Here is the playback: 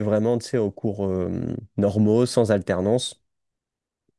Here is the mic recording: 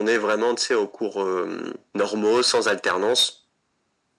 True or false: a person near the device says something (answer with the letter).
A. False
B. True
A